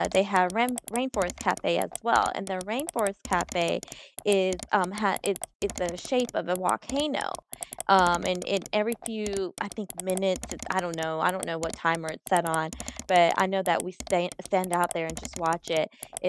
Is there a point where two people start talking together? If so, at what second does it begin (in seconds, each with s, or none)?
none